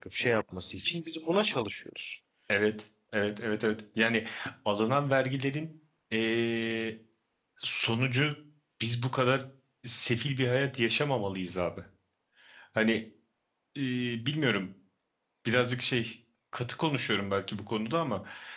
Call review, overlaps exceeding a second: none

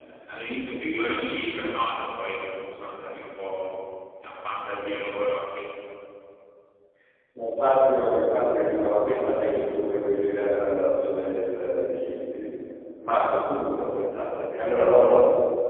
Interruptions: none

